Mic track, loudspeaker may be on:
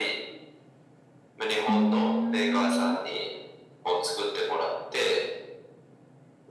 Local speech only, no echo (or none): うーん。